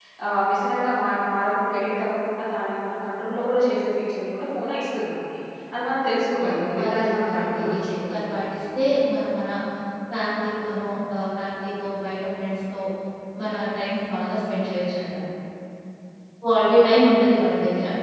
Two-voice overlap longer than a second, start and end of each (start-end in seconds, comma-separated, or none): 6.4-8.4